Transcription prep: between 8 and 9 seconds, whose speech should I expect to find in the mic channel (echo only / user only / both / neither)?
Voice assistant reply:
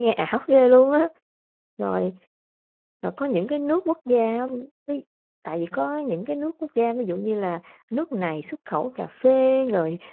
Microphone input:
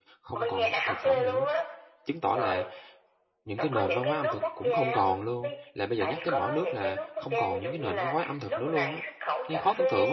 both